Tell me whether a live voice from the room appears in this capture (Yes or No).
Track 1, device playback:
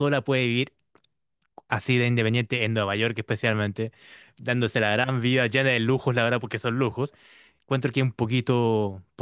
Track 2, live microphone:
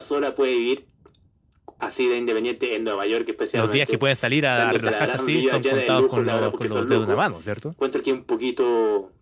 Yes